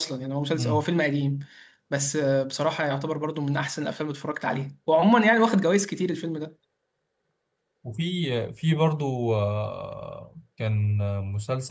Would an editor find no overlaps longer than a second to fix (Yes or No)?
Yes